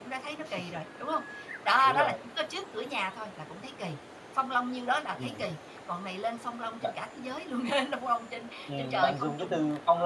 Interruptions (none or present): present